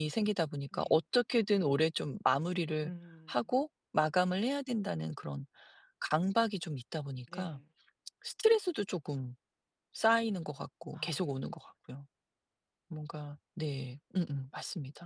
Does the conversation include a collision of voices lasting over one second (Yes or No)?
No